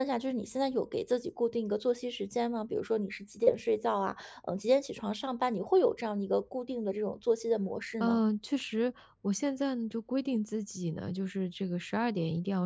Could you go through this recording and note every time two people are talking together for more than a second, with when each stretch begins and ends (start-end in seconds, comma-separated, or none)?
none